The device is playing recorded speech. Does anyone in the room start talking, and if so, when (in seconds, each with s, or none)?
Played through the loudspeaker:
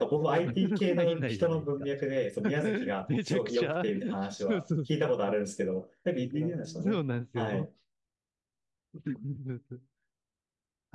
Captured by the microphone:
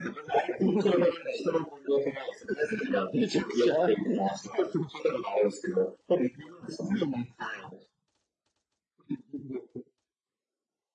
none